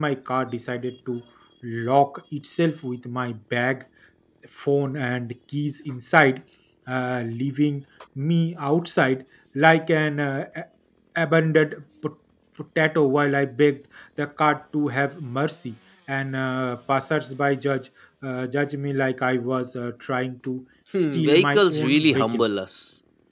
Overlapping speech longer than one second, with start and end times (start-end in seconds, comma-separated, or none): 20.9-22.4